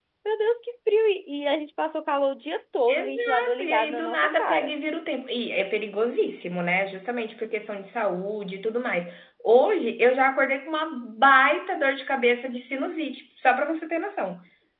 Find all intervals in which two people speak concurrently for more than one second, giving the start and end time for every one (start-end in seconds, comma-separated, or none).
2.9-4.7